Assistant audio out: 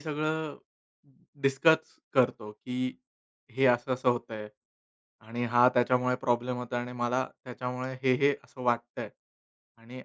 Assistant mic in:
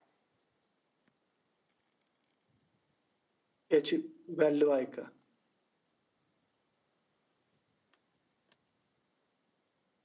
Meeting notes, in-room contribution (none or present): present